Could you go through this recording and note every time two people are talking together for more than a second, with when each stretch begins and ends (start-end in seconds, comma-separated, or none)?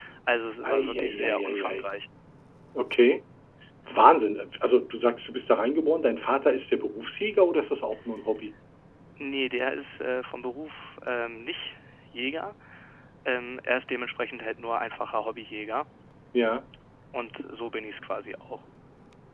0.6-1.8